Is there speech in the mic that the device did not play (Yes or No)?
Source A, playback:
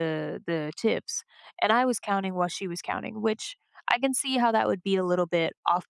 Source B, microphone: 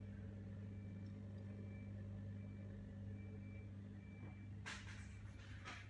No